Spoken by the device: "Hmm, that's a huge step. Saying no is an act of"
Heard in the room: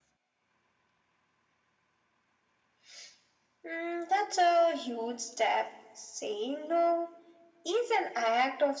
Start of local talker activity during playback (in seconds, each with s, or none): none